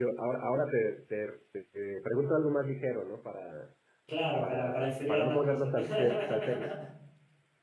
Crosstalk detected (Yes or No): Yes